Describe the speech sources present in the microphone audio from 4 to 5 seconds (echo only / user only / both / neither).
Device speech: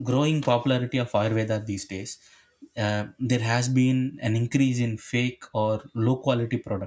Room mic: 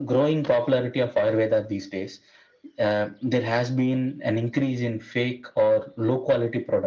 echo only